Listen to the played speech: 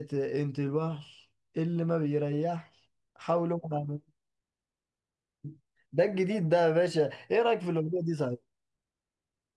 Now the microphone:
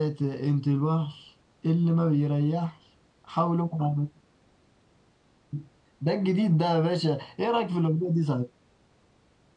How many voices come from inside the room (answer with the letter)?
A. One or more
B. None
B